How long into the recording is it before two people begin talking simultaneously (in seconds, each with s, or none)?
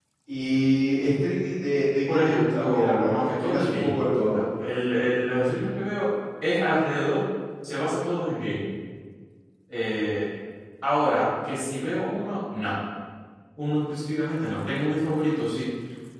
2.1 s